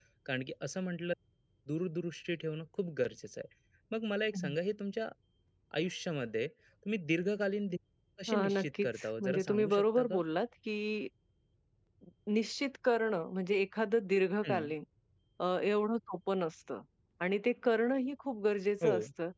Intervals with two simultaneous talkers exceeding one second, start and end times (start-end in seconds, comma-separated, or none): 8.5-10.2